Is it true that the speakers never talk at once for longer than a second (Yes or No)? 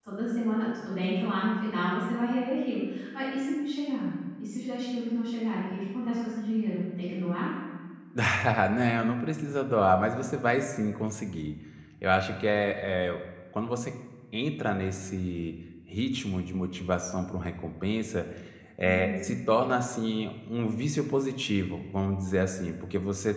Yes